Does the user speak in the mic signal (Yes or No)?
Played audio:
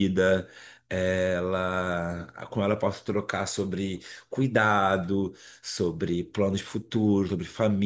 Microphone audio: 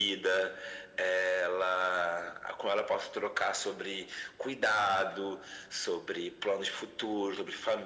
No